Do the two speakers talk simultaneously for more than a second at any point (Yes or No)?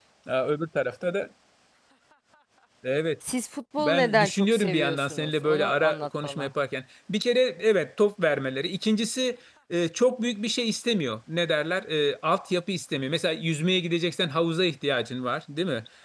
Yes